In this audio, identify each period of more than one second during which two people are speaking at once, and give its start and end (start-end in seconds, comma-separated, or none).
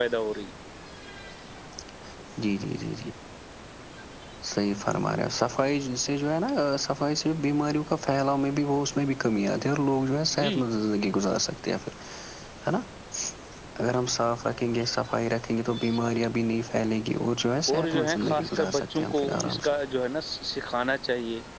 17.7-19.7